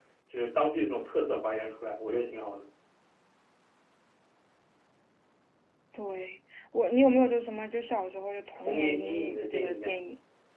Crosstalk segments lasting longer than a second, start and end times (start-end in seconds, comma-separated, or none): 8.6-10.0